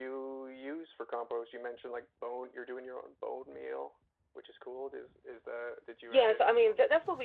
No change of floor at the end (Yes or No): No